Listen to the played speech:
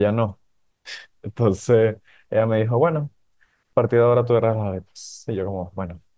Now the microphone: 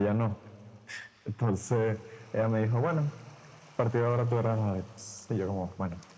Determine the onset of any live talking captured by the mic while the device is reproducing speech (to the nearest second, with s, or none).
none